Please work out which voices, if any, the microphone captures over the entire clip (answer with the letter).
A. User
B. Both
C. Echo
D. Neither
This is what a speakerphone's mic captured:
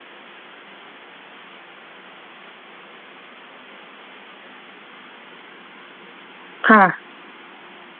A